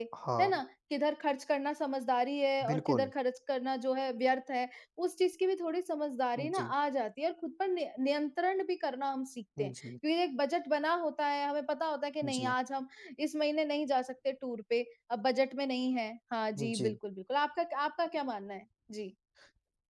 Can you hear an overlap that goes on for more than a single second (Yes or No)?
No